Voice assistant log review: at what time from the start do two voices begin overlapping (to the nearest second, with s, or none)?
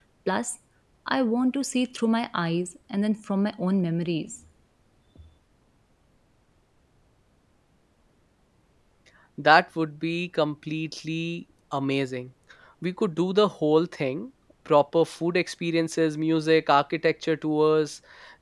none